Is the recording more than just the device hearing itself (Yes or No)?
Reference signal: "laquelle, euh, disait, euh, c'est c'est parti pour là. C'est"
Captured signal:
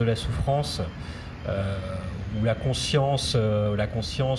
Yes